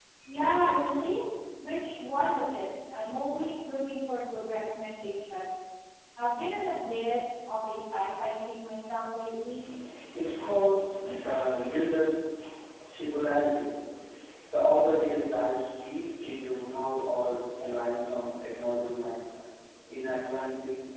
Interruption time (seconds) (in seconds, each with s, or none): none